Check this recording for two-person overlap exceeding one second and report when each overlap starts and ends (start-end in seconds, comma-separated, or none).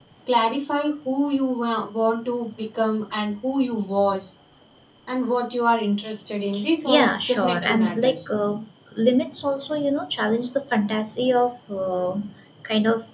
6.8-8.3